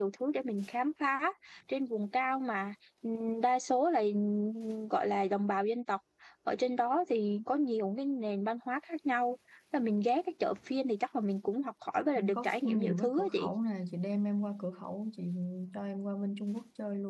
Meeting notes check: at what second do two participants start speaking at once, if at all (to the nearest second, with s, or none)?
12 s